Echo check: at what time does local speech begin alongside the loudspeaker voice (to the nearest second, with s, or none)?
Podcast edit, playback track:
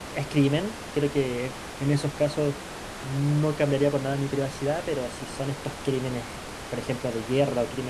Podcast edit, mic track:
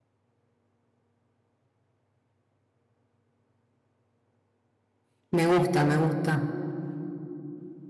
5 s